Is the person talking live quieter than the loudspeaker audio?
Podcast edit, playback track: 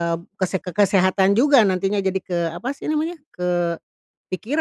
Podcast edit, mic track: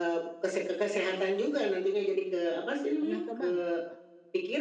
Yes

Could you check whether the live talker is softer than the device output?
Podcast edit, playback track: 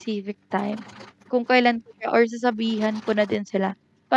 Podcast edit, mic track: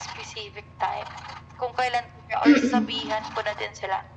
No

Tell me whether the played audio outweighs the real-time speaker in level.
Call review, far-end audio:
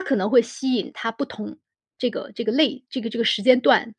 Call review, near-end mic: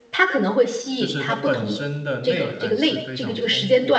Yes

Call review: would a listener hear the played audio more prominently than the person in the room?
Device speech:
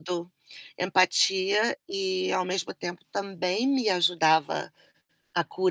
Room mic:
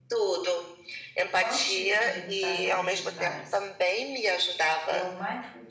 Yes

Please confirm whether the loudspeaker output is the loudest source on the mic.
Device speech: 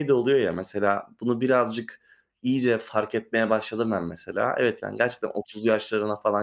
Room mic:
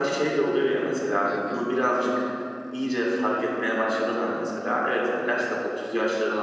Yes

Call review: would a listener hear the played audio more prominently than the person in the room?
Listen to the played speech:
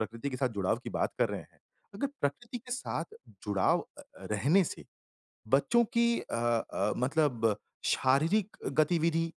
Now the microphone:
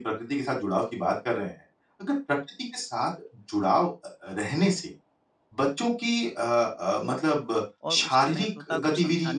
Yes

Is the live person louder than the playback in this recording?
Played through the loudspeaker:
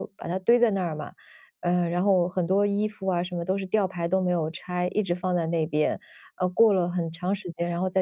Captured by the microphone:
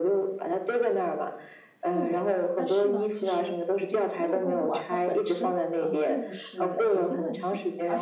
No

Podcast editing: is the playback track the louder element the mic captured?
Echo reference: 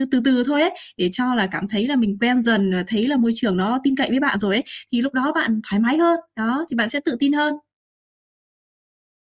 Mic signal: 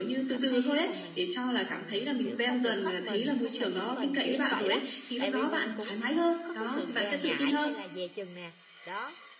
Yes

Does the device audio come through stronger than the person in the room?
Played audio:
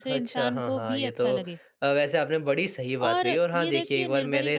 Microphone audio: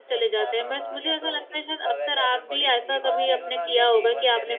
No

